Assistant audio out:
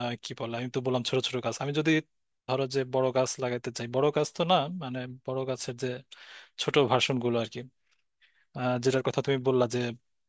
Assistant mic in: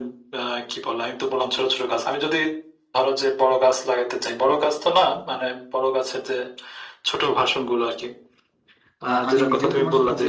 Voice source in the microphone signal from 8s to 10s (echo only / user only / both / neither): both